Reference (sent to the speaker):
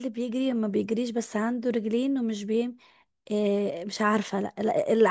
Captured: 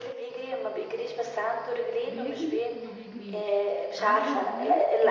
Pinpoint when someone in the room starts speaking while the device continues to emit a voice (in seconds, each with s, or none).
2.0 s